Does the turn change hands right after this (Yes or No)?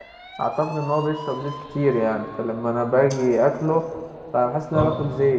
No